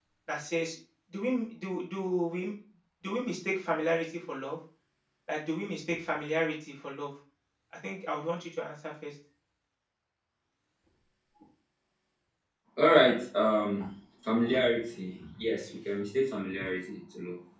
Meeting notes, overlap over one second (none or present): none